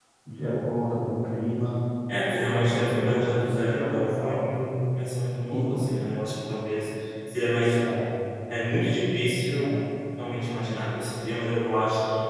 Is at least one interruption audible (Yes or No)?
Yes